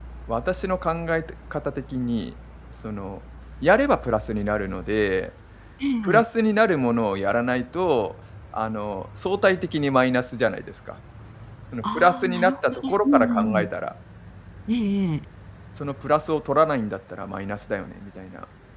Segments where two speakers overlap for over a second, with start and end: 11.8-13.7

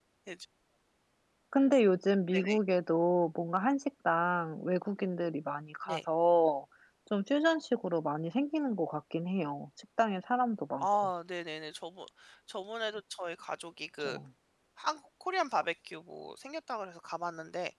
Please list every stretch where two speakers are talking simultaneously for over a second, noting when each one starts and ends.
none

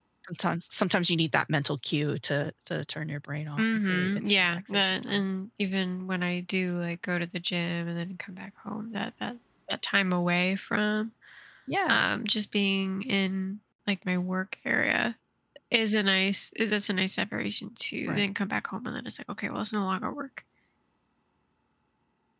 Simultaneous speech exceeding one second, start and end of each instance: 3.6-5.2

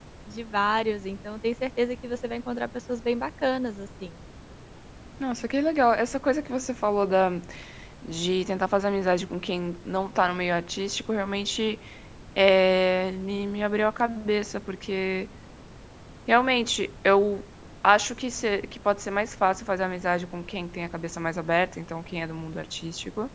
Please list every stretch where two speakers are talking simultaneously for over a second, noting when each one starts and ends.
none

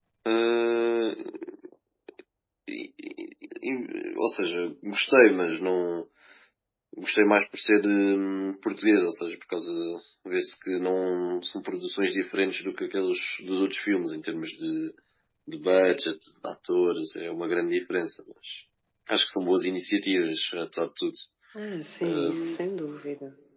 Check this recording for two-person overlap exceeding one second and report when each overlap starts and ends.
none

